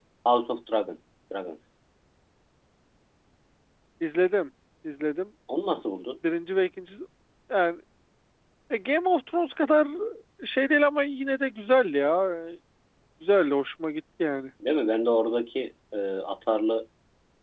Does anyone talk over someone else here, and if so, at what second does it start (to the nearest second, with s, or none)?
none